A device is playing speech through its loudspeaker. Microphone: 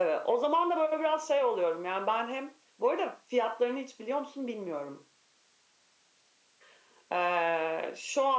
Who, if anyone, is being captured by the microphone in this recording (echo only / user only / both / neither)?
echo only